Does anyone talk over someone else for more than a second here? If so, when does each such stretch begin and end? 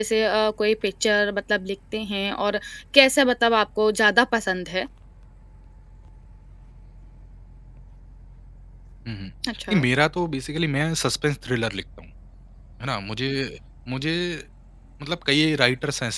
none

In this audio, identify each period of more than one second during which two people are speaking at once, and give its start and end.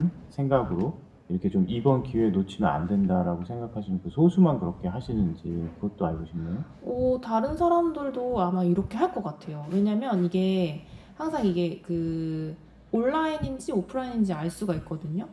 none

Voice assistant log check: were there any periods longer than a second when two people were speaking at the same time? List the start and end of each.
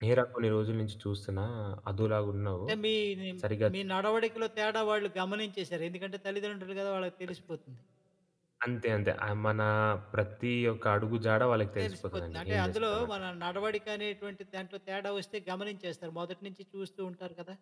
11.8-13.1

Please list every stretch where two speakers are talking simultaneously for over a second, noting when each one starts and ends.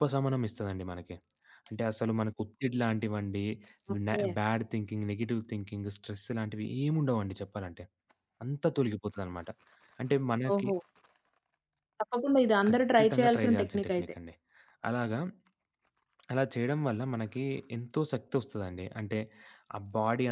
12.7-14.1

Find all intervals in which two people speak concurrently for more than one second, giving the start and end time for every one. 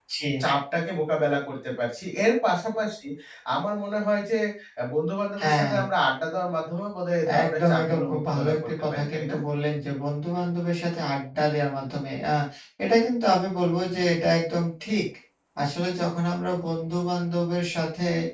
7.4-9.4

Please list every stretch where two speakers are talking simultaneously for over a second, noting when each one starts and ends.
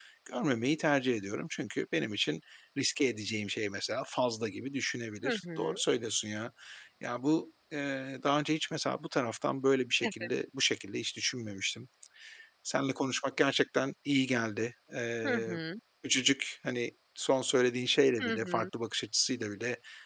none

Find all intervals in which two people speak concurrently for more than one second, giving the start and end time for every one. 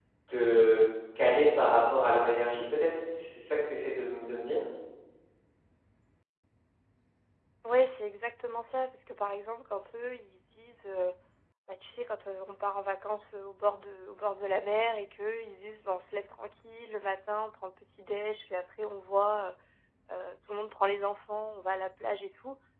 none

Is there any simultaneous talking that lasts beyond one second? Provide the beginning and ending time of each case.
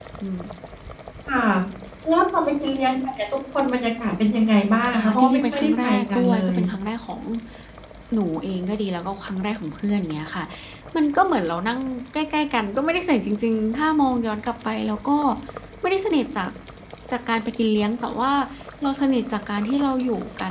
4.9-6.6

